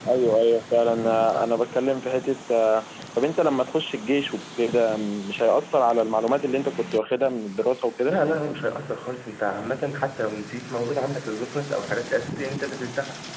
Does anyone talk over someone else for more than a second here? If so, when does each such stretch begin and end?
none

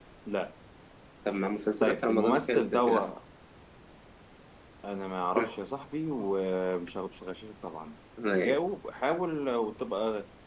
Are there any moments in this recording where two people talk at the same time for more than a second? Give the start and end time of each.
1.8-3.1

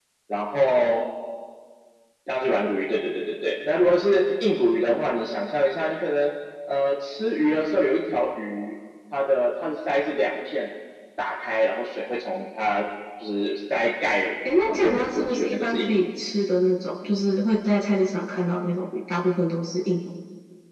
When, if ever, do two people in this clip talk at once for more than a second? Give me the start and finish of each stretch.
14.6-16.1

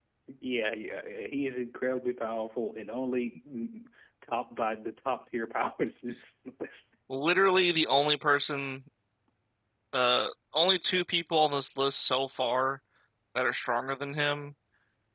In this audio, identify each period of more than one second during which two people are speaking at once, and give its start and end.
none

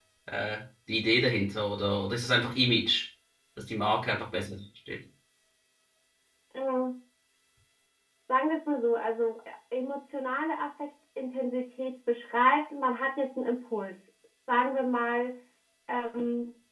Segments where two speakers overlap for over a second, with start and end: none

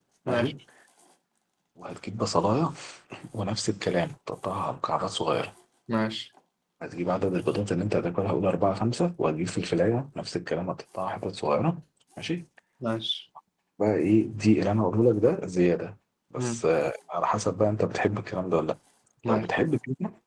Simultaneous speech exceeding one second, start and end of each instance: none

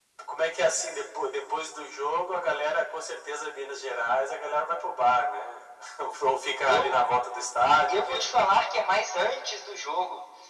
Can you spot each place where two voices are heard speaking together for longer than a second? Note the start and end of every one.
none

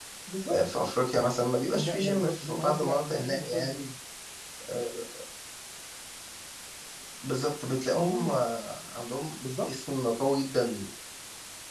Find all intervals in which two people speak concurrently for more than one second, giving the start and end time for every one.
1.7-3.8

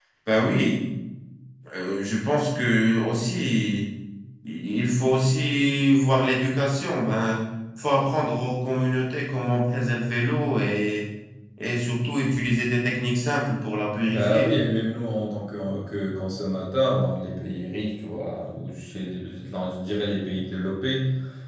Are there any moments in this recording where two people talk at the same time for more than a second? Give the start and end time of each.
none

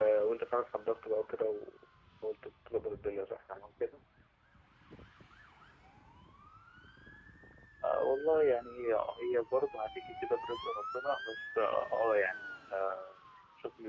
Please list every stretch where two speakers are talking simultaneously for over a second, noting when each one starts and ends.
none

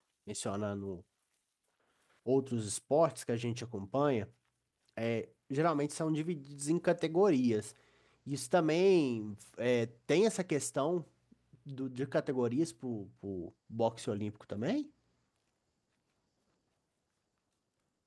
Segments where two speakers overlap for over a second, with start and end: none

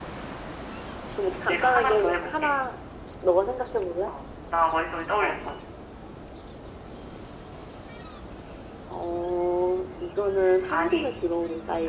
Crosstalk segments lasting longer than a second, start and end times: 1.2-2.5

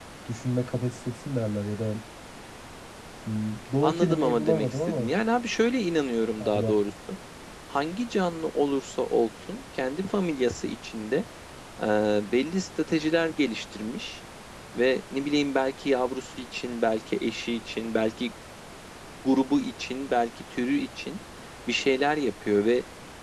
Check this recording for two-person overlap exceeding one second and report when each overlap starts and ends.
3.8-5.1

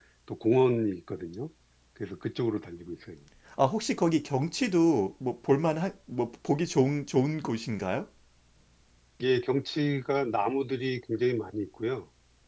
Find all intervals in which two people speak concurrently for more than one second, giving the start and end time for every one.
none

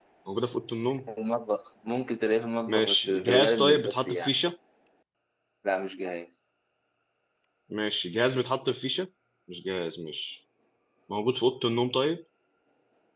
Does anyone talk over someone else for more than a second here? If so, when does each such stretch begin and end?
2.7-4.3

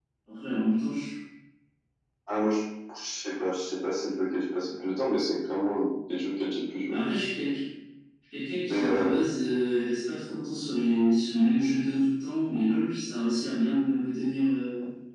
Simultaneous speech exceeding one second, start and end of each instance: none

